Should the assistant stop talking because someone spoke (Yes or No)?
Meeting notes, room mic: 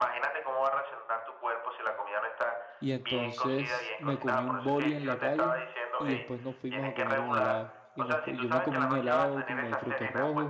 Yes